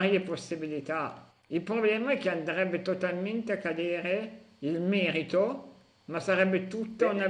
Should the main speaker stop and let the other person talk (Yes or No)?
No